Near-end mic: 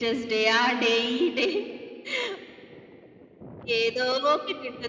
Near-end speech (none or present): none